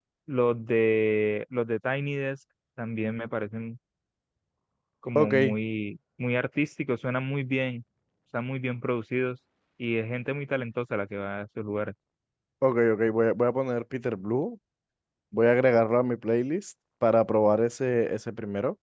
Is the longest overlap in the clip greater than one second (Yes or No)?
No